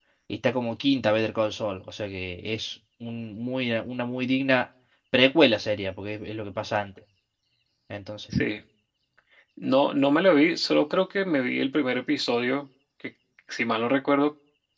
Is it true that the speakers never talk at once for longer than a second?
Yes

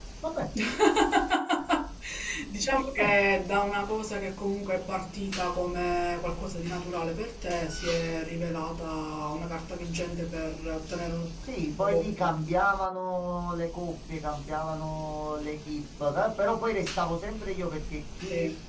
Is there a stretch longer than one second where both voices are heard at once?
No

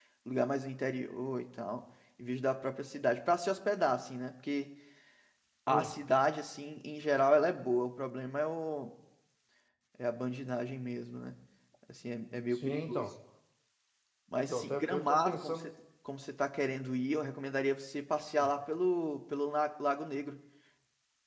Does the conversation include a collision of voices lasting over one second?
Yes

